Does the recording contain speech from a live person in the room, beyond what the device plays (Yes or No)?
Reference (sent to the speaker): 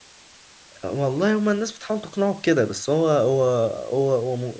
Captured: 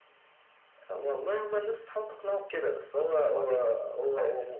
Yes